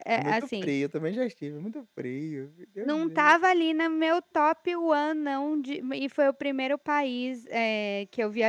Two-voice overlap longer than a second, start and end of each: none

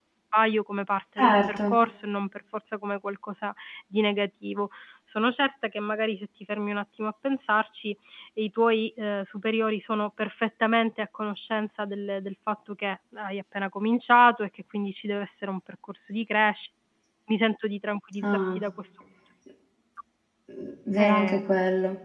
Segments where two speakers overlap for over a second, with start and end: none

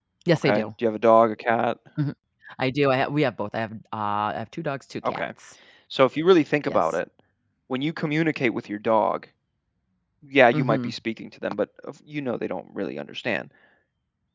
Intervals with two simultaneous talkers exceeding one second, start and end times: none

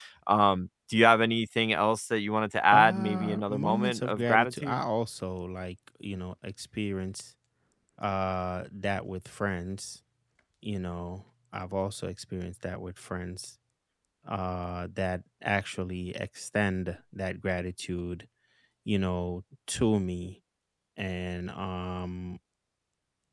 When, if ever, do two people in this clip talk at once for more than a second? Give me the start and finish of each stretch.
2.7-4.8

